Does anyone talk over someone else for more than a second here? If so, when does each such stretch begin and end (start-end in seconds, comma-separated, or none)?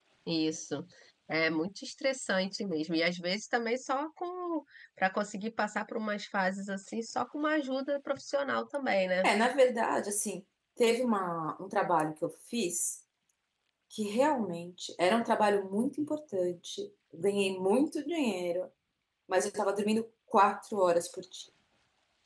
none